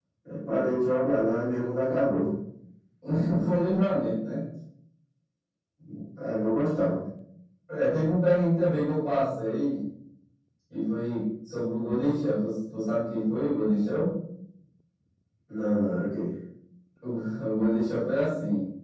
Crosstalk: none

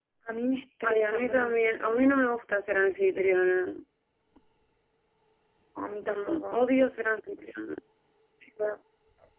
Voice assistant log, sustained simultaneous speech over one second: present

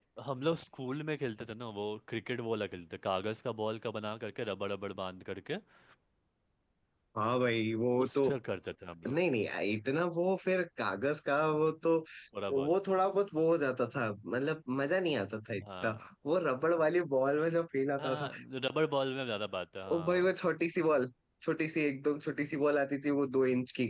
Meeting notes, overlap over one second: none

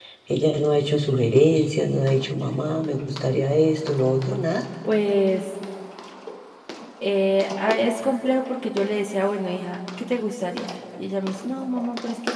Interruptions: none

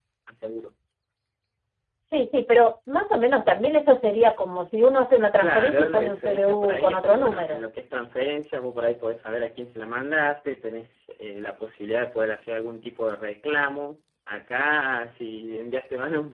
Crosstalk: present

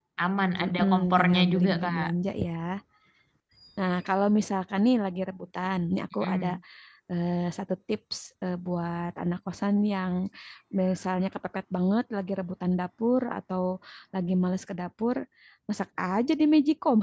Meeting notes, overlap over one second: present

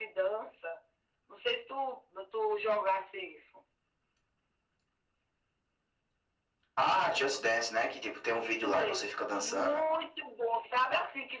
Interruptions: present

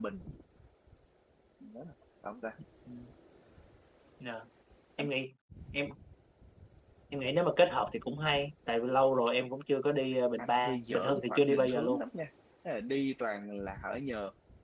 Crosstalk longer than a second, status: present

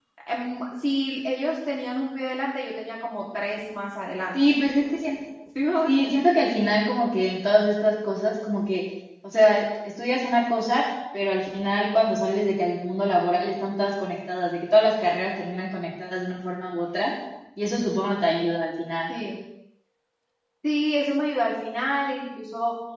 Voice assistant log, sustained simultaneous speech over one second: none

